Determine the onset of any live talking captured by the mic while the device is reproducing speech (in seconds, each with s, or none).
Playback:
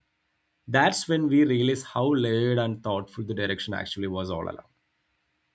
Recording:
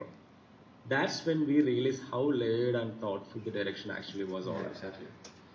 4.4 s